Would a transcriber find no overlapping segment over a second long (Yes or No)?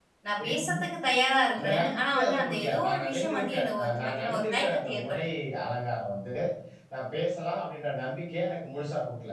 No